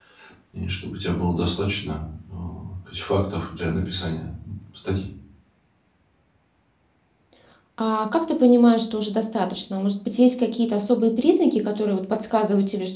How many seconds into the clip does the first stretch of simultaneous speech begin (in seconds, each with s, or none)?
none